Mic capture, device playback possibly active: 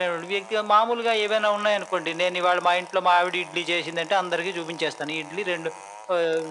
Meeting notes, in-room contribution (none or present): none